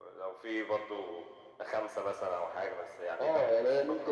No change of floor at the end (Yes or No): No